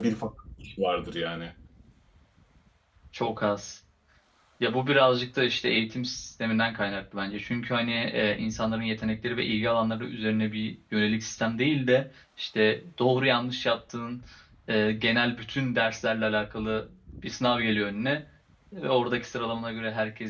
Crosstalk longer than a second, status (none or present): none